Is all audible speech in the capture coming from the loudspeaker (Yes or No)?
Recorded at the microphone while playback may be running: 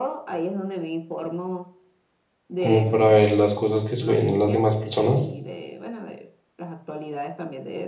No